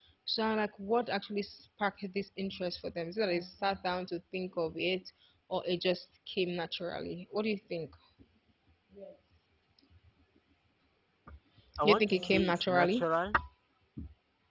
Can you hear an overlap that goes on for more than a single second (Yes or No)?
Yes